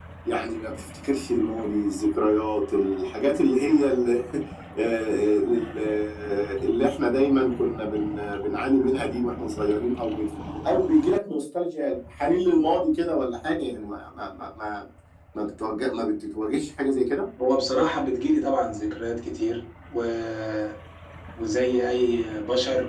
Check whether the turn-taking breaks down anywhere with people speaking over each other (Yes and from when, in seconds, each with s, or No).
No